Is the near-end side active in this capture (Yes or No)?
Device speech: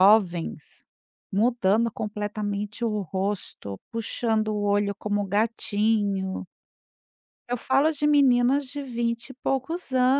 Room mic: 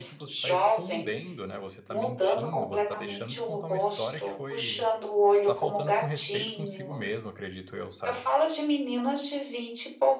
Yes